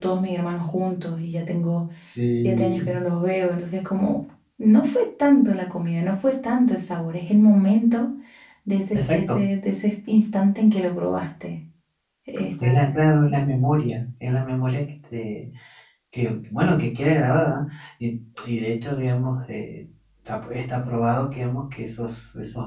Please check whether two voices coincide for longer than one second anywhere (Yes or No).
No